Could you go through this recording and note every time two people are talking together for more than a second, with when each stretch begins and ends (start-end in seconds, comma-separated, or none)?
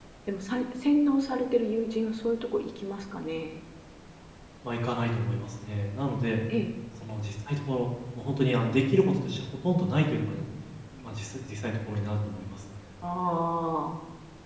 none